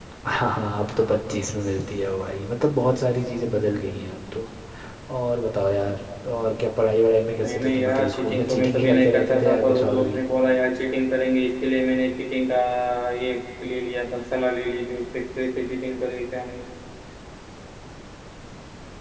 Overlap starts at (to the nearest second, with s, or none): 7 s